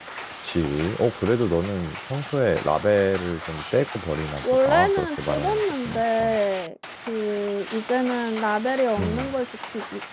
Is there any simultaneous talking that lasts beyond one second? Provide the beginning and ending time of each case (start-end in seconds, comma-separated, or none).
4.4-6.3